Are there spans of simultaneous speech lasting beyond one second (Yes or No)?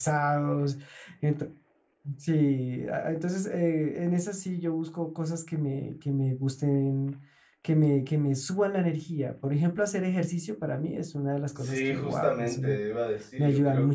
Yes